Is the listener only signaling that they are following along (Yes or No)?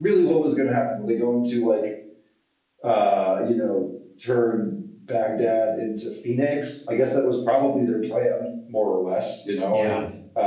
Yes